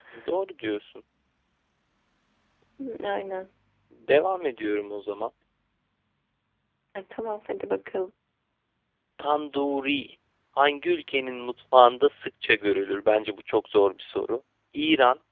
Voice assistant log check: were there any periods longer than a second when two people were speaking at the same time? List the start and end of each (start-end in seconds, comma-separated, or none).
none